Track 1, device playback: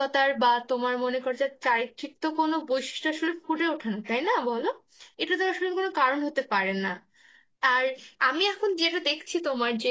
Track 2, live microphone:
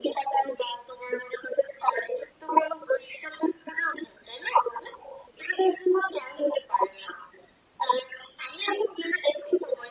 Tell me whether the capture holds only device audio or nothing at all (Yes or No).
Yes